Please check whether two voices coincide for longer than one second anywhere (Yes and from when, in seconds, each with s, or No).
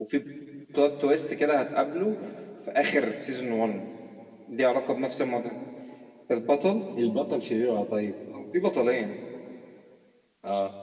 No